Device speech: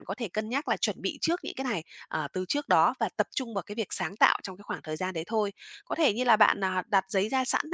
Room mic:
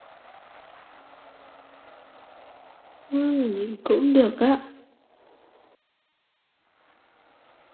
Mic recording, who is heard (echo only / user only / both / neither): user only